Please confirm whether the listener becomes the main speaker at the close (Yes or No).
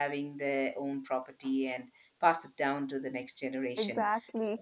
No